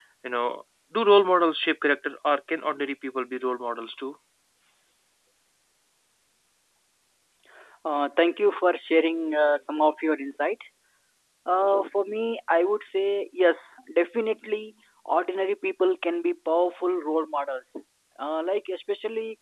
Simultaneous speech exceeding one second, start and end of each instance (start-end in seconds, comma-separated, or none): none